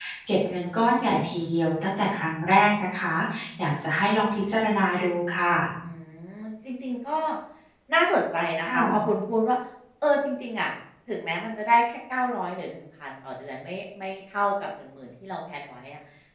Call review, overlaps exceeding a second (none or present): none